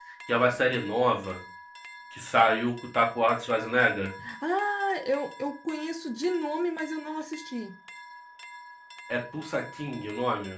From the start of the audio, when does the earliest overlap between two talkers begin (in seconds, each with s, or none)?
none